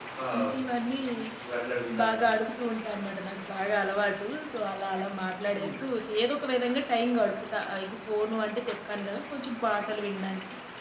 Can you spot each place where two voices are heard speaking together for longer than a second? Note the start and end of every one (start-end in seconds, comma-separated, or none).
none